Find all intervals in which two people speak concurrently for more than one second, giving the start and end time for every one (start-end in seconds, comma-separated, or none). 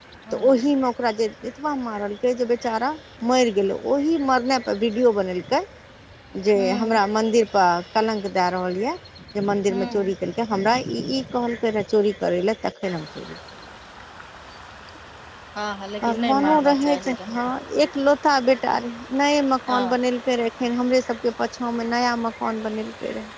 16.0-17.3